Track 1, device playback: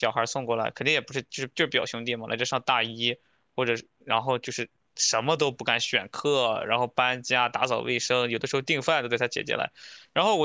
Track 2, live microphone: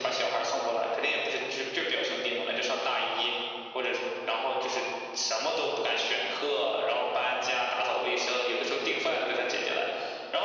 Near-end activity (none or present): none